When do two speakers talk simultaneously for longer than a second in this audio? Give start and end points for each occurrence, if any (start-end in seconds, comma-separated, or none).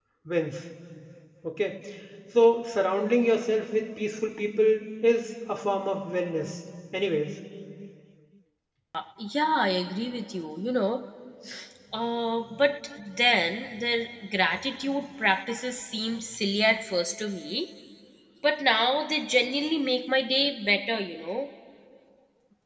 none